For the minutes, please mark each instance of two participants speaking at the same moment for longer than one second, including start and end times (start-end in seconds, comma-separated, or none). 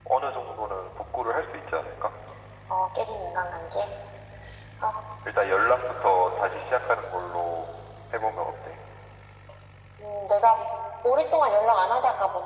none